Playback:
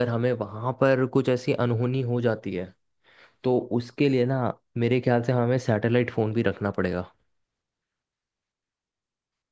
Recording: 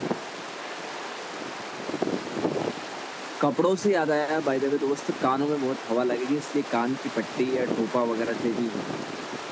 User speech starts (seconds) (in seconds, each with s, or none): 3.4 s